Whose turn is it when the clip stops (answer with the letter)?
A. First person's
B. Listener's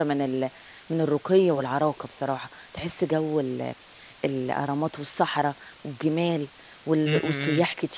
A